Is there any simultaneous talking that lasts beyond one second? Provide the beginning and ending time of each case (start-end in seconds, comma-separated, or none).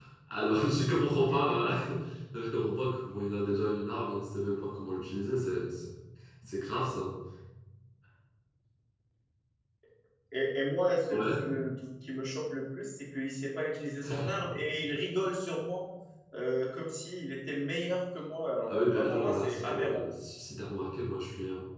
18.7-20.0